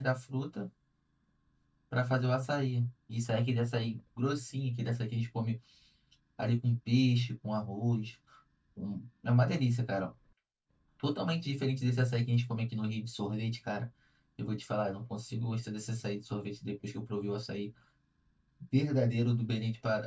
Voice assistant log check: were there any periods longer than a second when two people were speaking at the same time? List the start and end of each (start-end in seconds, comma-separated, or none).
none